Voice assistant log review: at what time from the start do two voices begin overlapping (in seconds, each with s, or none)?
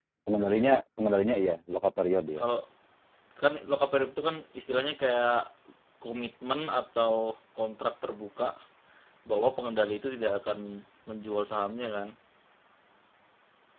none